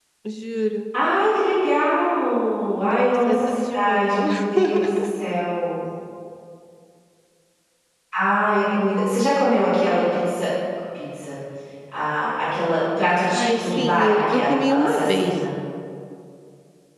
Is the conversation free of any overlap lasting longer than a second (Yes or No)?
No